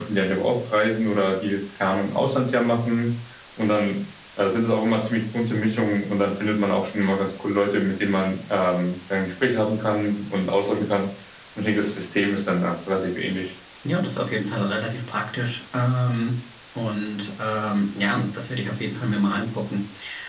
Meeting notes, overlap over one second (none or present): none